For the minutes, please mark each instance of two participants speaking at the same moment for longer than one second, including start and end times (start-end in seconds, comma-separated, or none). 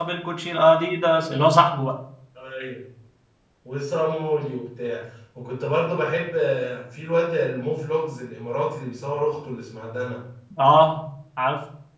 none